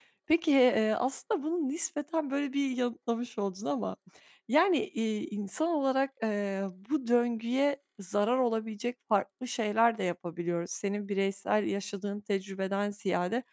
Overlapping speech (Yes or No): No